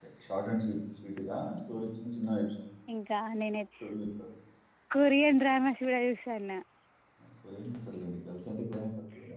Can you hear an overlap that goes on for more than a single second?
No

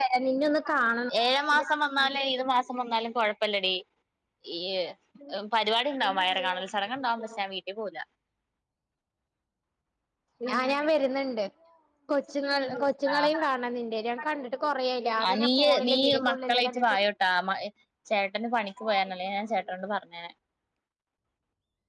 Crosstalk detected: Yes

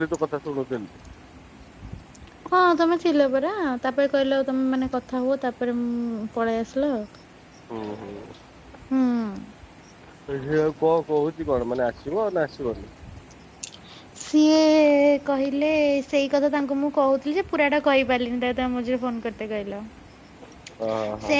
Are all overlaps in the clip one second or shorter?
Yes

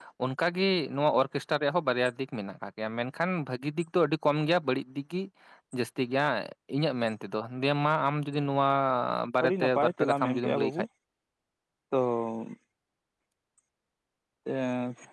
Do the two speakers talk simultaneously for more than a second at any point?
Yes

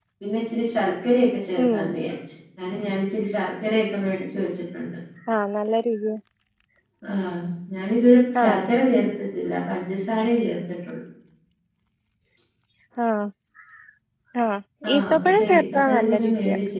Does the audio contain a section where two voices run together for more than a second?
Yes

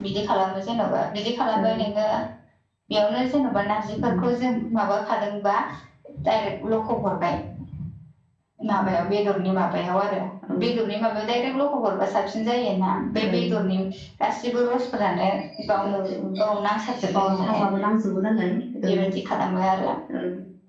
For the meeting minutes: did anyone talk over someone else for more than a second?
No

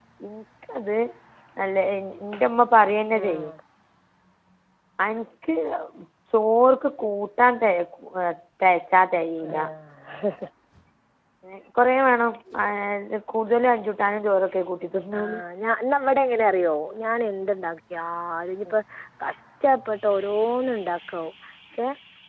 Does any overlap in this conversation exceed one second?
No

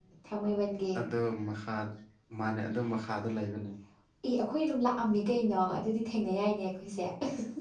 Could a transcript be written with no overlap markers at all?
Yes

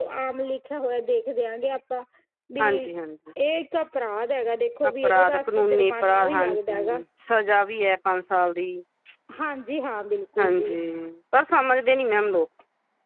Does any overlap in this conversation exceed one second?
Yes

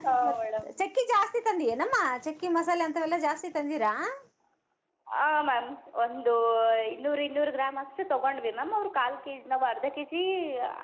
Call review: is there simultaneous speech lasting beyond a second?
No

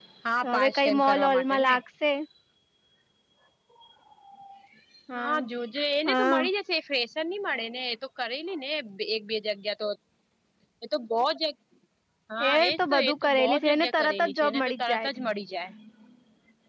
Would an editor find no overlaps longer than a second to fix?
No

